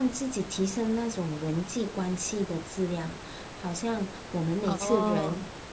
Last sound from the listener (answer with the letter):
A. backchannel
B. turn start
A